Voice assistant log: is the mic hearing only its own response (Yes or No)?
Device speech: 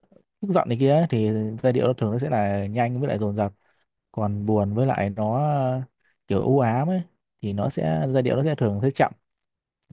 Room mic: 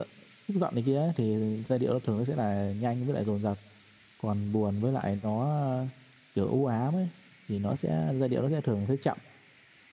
Yes